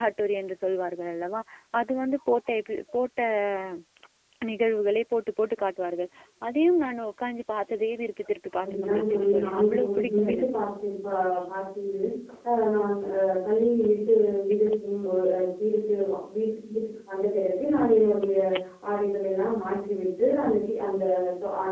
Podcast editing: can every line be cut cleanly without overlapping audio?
No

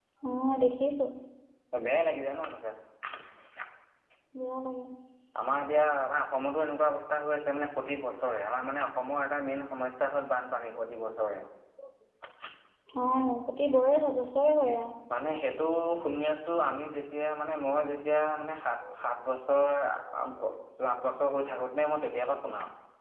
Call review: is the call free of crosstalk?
Yes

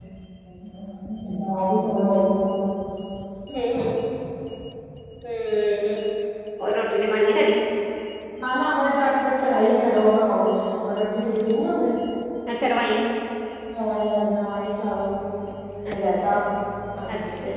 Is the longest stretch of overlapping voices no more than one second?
Yes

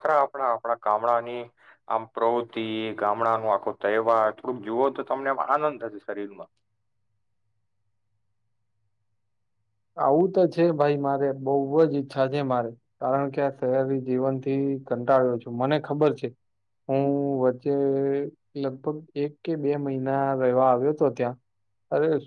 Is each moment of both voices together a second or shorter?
Yes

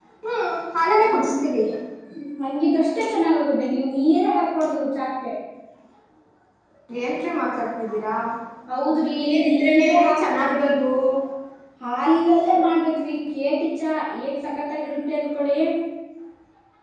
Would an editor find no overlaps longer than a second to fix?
No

